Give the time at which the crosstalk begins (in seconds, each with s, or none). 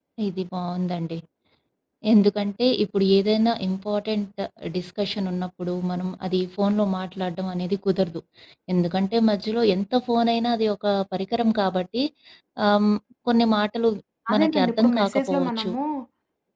14.3 s